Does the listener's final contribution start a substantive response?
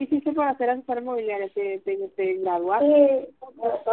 Yes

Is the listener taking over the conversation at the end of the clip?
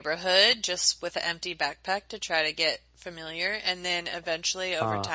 No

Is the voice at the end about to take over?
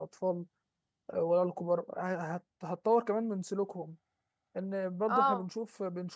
No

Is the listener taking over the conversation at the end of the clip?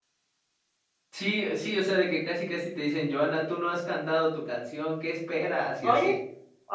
Yes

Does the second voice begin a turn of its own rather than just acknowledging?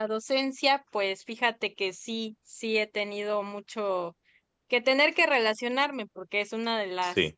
No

